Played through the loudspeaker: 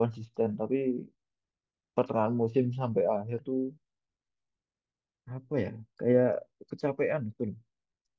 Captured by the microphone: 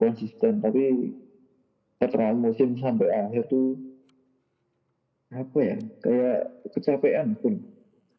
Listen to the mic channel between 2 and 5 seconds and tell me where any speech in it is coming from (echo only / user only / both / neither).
echo only